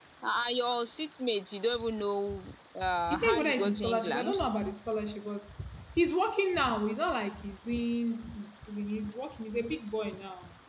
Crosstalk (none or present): present